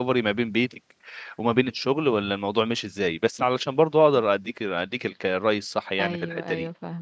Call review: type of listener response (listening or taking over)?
taking over